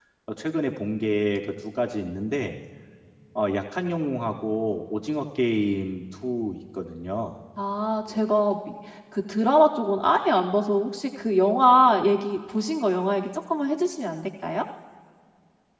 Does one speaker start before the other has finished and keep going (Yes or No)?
No